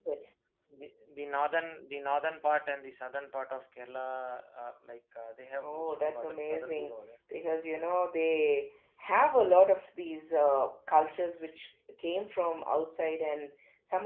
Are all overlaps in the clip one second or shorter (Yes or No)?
No